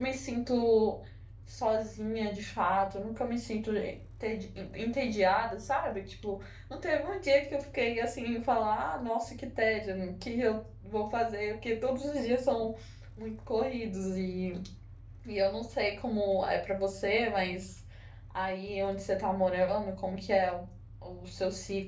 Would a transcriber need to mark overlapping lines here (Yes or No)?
No